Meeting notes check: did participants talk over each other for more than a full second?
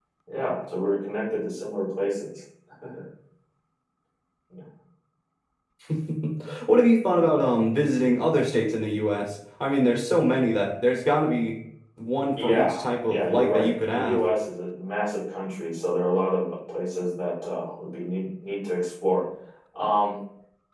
Yes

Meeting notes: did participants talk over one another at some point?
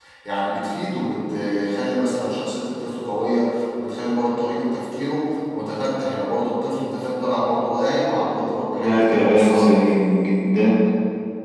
Yes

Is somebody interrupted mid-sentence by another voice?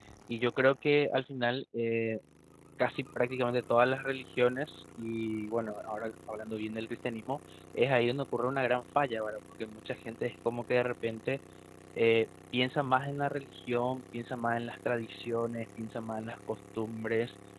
No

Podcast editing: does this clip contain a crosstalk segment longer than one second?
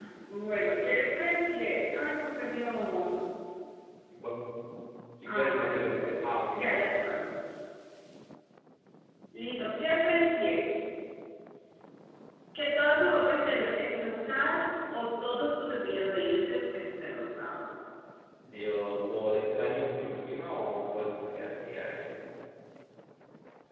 Yes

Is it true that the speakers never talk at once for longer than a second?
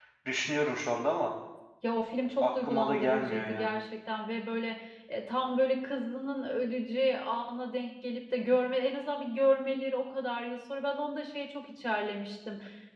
No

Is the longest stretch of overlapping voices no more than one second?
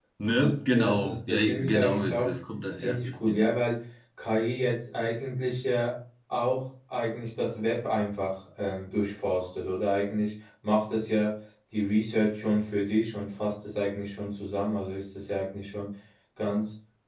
No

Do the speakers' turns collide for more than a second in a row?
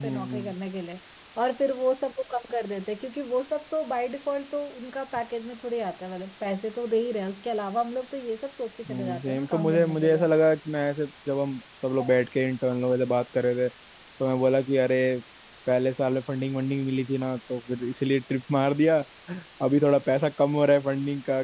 Yes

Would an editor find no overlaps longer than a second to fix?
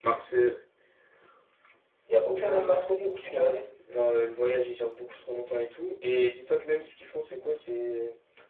No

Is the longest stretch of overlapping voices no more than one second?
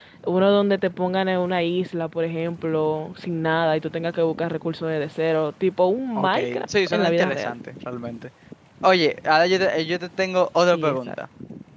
No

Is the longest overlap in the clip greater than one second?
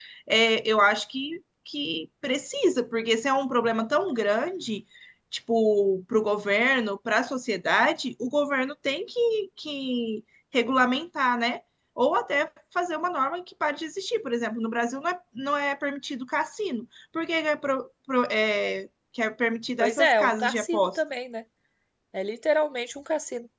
Yes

